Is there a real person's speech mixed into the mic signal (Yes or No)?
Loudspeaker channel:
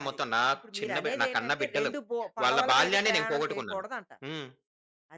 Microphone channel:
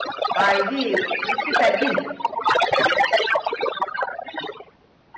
Yes